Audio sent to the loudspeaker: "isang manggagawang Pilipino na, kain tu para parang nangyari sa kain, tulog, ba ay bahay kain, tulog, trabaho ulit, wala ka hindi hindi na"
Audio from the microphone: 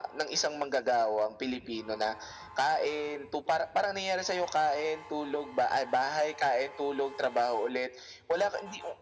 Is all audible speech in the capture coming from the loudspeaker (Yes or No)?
Yes